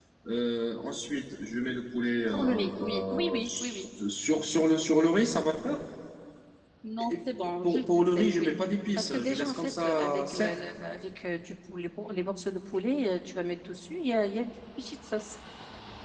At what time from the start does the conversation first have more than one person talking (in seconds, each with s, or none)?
2.3 s